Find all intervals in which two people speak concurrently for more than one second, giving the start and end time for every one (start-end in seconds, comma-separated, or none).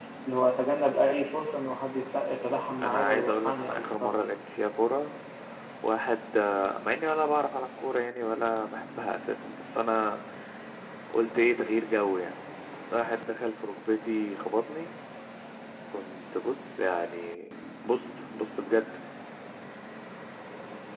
2.8-4.4